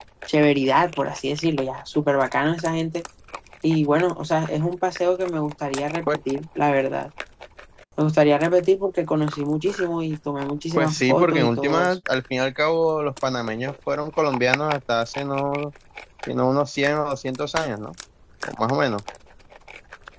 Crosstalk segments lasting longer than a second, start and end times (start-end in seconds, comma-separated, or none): 10.8-12.0